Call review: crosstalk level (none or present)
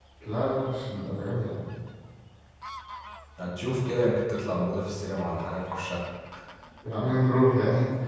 none